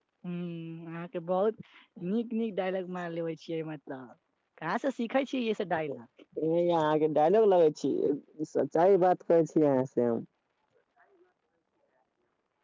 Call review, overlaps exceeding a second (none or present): none